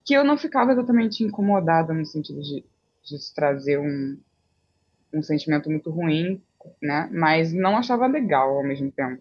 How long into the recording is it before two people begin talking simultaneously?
none

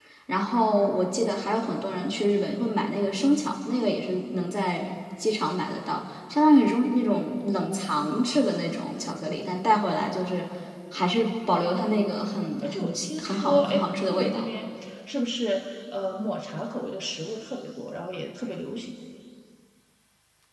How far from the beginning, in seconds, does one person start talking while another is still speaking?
12.2 s

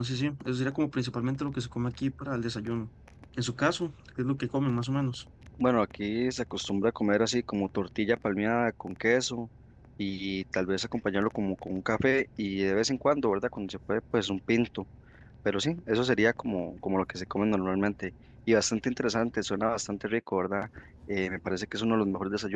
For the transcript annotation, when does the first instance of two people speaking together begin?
none

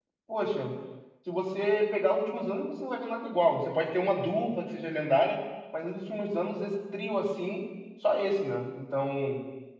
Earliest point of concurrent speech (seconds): none

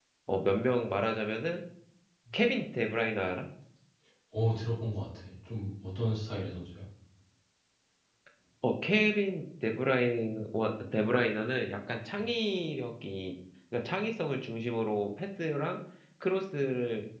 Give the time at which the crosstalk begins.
none

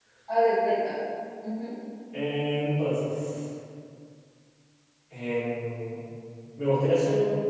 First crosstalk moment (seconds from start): none

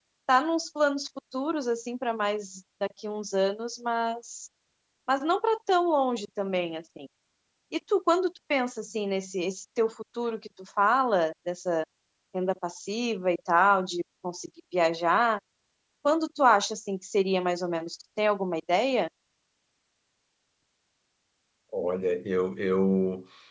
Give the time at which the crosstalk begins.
none

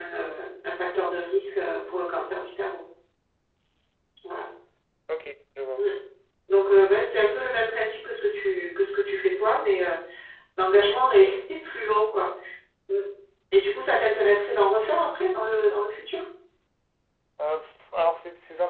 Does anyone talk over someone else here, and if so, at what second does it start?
none

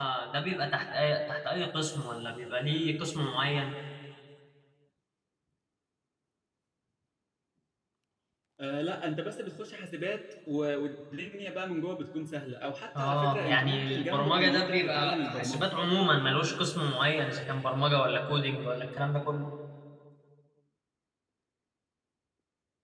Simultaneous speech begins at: 12.9 s

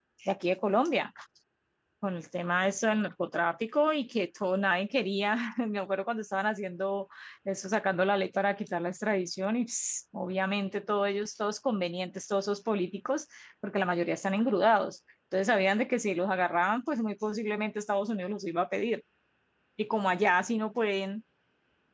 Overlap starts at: none

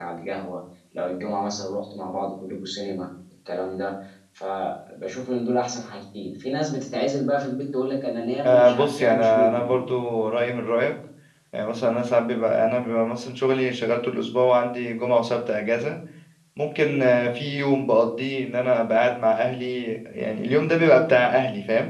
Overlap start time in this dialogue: 8.4 s

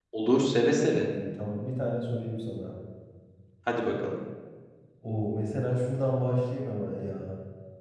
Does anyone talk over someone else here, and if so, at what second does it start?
none

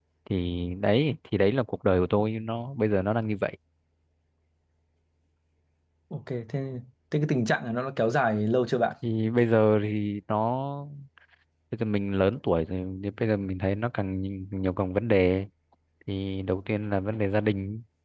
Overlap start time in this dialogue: none

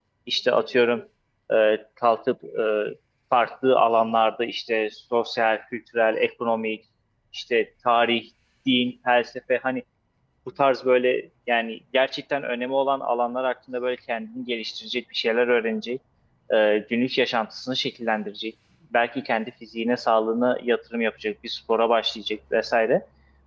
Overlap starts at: none

